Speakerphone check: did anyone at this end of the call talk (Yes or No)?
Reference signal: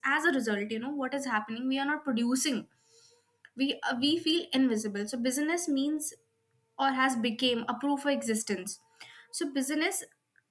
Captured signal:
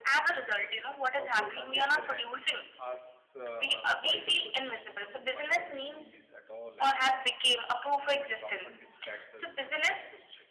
Yes